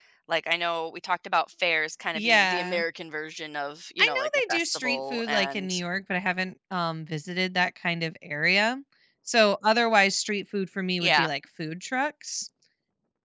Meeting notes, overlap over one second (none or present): present